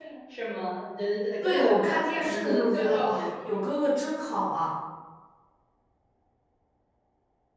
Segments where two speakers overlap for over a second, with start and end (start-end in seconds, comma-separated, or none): 1.4-3.7